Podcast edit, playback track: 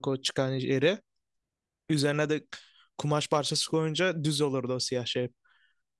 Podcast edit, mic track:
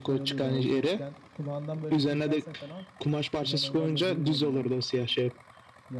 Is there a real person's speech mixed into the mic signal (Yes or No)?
Yes